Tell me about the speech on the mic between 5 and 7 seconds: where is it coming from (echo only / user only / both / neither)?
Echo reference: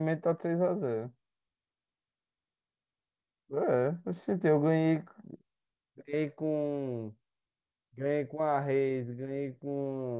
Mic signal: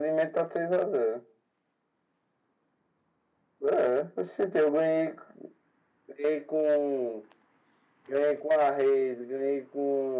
echo only